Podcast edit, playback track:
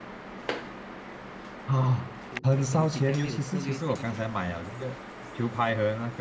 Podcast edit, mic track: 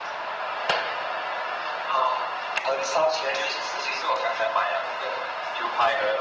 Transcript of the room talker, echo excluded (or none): none